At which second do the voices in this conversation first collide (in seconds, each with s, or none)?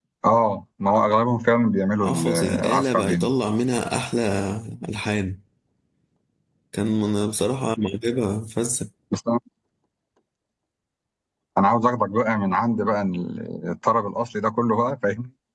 2.0 s